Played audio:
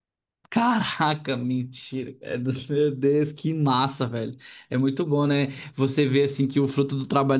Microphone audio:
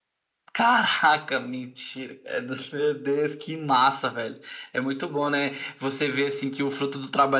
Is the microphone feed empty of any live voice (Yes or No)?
Yes